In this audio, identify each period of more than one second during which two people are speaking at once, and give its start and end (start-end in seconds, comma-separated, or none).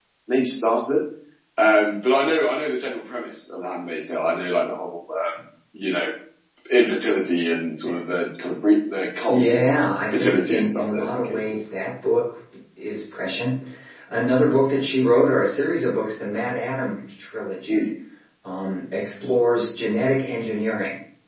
10.1-11.6